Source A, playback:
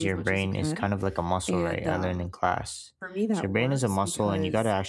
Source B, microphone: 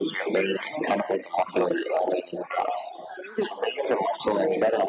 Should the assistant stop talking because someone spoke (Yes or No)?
No